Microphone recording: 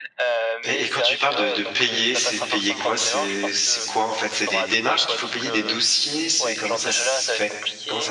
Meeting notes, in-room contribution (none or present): present